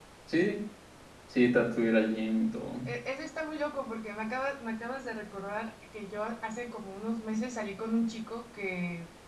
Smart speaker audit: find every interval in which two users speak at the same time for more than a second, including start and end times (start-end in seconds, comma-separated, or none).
none